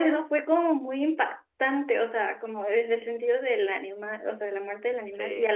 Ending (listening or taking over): listening